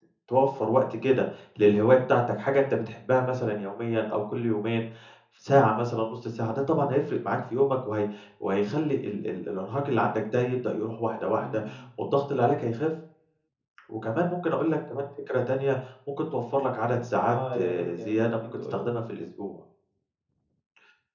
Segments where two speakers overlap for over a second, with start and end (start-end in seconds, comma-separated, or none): 17.3-18.9